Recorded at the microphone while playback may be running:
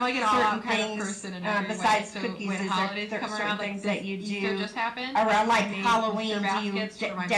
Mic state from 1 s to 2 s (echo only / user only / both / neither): echo only